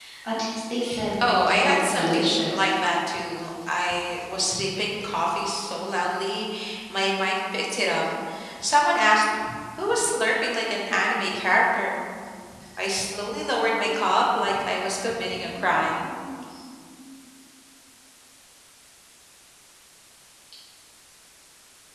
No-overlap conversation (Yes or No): No